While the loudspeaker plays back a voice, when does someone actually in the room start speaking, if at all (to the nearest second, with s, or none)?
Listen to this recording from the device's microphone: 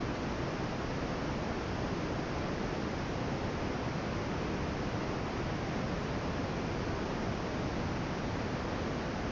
none